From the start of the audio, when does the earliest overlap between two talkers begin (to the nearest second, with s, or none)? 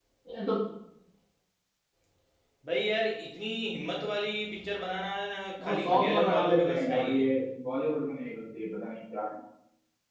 6 s